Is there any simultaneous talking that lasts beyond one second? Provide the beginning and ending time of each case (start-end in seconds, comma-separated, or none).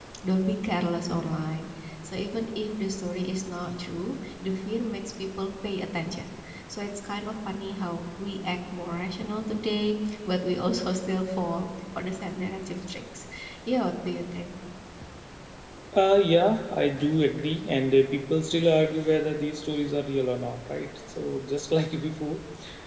none